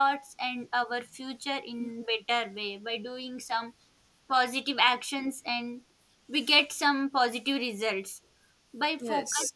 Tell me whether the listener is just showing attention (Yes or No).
Yes